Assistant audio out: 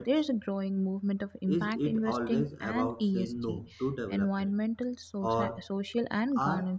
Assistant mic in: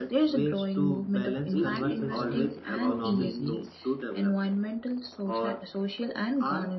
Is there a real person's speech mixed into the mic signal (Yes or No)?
Yes